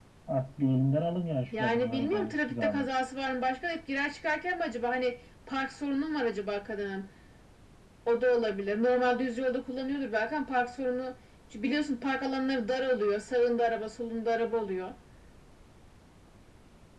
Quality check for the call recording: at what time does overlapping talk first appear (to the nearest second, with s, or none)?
2 s